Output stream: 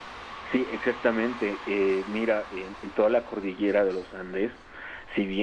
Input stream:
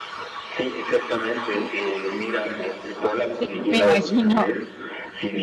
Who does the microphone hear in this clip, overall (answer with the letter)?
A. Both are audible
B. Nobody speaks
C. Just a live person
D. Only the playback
A